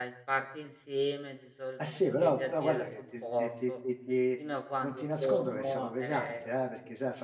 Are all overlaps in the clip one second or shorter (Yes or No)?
No